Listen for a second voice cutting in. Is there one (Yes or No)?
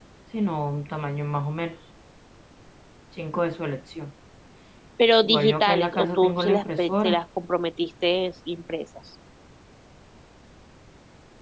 Yes